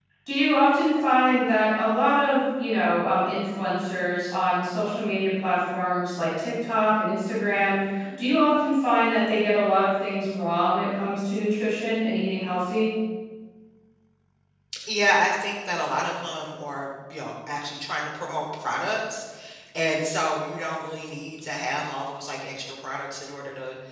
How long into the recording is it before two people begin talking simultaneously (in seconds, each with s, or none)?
none